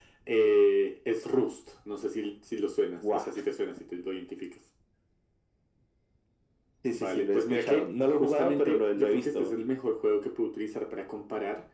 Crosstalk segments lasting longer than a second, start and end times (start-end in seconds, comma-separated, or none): 6.9-9.5